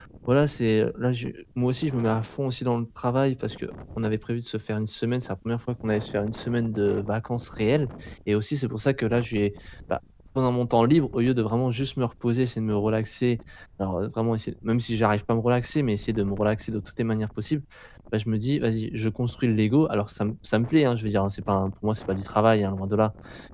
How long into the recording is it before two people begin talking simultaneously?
none

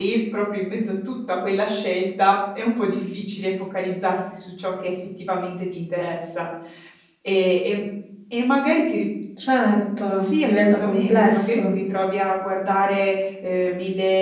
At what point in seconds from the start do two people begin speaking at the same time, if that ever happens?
10.2 s

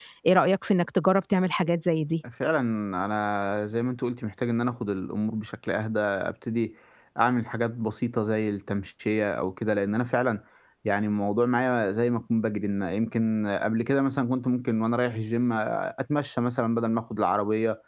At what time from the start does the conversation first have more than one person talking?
none

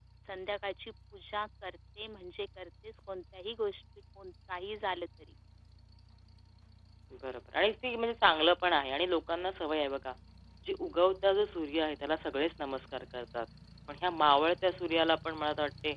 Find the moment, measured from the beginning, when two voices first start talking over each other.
none

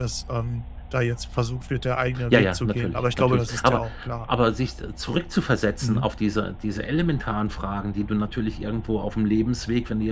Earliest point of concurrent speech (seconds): 2.1 s

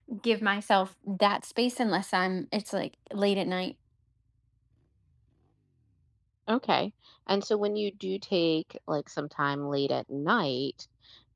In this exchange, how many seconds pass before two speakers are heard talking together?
none

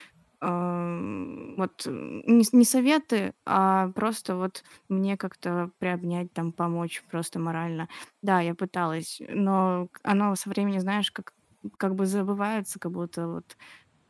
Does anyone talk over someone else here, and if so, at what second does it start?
none

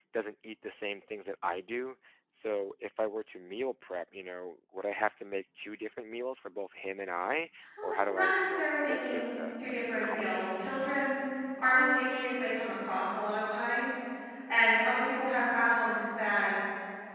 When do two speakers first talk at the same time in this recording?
7.8 s

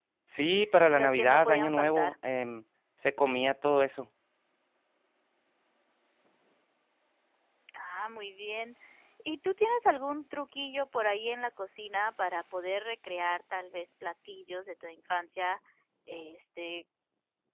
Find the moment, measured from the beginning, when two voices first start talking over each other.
0.9 s

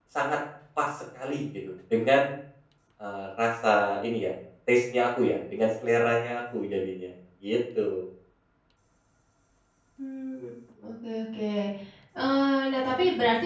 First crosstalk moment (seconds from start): none

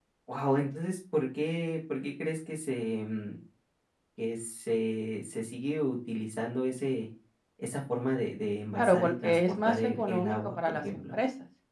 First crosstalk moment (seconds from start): 8.8 s

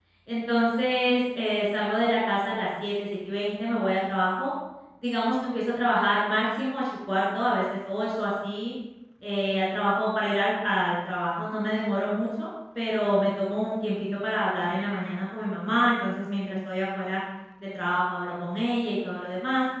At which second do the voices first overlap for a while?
none

